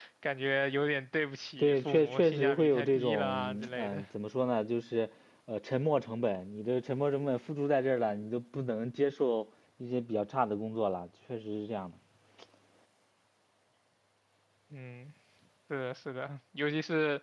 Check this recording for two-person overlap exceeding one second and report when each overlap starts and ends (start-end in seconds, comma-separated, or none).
1.6-4.0